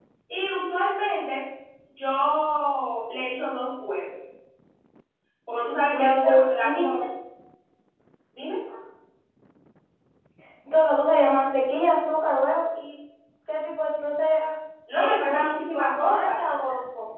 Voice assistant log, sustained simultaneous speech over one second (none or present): present